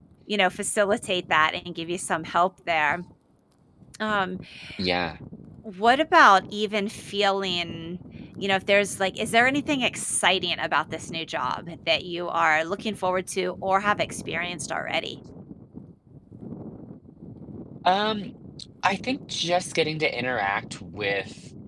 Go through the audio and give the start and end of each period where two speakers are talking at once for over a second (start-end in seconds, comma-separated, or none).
none